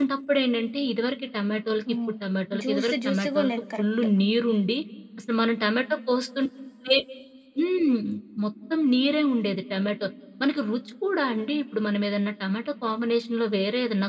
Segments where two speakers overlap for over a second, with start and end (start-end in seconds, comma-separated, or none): 2.6-3.8